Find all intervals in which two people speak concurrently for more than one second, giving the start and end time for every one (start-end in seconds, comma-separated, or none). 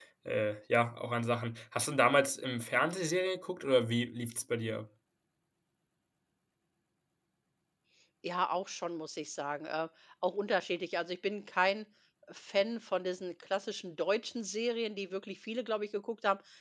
none